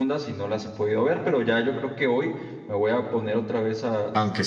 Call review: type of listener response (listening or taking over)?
taking over